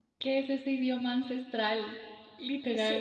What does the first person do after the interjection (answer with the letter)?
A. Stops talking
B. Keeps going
A